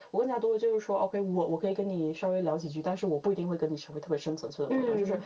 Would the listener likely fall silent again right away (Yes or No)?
Yes